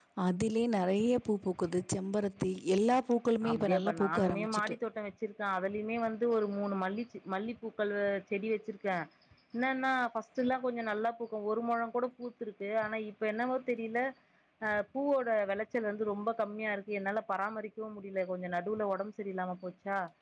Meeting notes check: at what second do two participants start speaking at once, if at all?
3.4 s

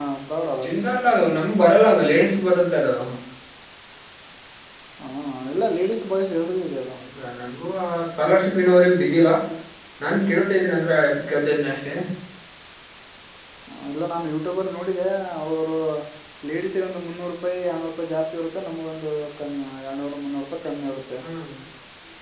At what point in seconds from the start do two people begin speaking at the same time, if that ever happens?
none

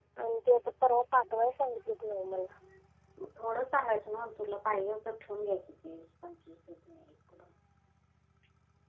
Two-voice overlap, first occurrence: none

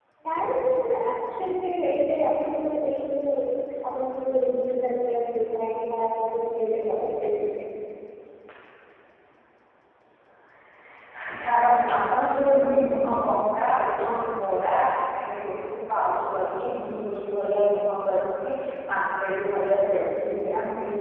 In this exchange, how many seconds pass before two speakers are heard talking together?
none

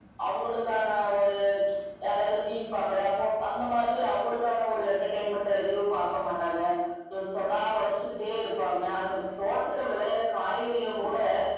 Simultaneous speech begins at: none

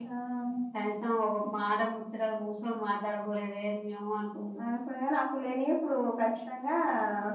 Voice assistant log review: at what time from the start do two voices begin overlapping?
none

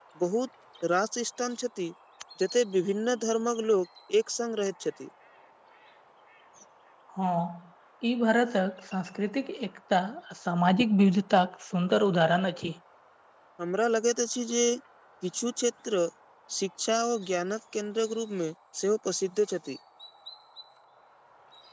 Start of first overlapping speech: none

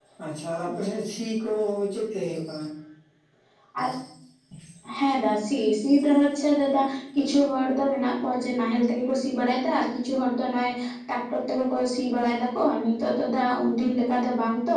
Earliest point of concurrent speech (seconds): none

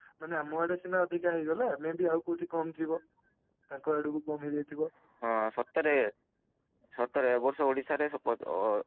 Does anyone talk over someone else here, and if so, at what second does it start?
none

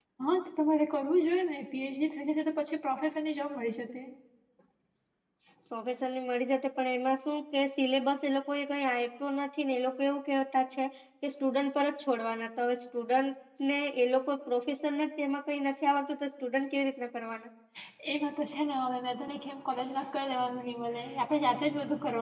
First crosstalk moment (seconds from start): none

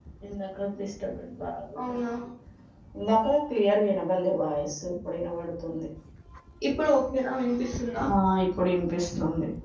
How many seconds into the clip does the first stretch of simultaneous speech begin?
none

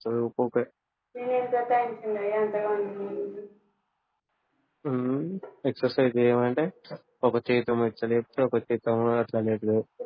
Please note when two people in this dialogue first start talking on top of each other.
none

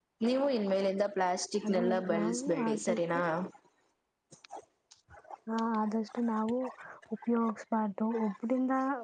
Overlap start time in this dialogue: 1.6 s

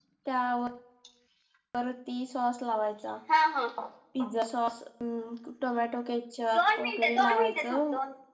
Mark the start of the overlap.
6.5 s

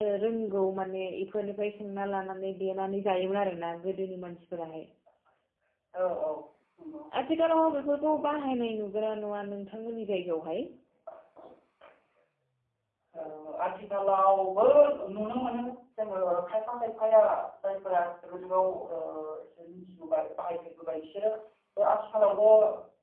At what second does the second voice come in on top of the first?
none

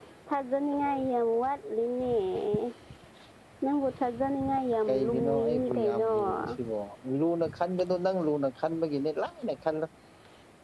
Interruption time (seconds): 4.9 s

